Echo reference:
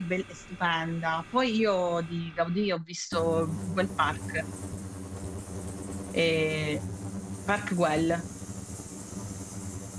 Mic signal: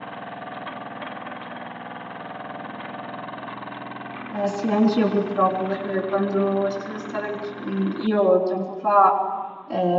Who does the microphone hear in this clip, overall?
user only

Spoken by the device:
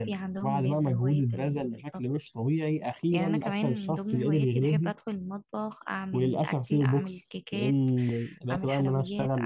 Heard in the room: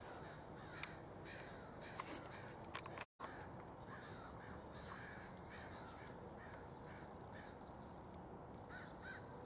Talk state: neither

